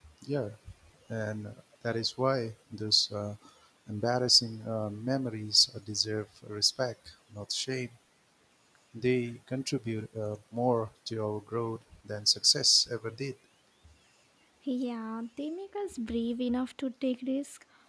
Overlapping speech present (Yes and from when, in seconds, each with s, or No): No